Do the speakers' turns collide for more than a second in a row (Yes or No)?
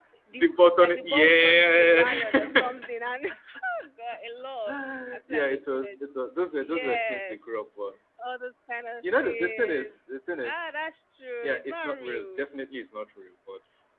Yes